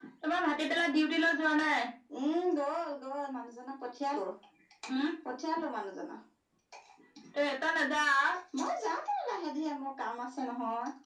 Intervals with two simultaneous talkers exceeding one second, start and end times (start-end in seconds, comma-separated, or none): none